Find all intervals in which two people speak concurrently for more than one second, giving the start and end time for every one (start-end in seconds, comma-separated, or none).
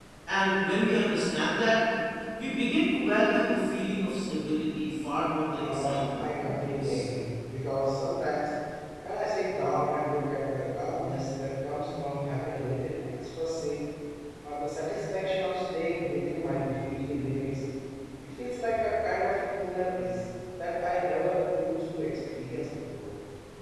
5.6-7.1